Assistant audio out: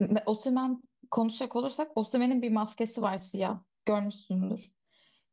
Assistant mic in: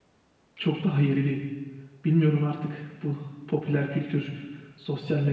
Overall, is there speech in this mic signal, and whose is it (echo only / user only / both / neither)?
user only